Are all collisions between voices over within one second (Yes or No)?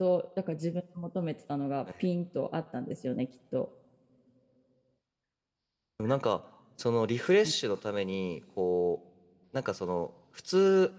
Yes